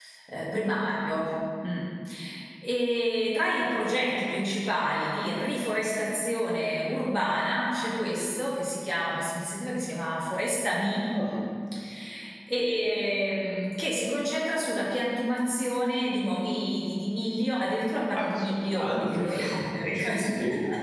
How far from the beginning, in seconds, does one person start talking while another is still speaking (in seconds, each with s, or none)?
18.1 s